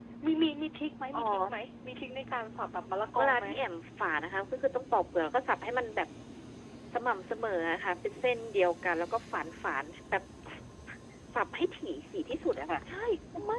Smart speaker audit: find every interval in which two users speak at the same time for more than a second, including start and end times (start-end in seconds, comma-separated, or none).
none